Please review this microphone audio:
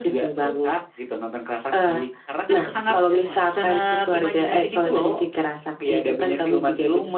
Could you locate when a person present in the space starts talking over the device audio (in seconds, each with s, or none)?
2.4 s